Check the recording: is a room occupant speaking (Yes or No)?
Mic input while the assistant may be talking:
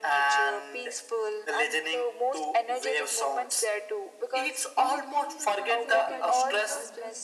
Yes